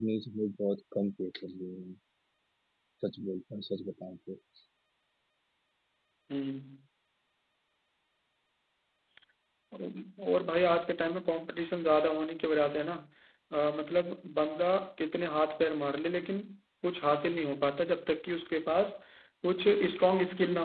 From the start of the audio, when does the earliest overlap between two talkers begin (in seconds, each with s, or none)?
none